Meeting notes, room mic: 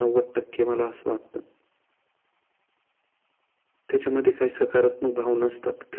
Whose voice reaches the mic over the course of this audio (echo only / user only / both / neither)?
echo only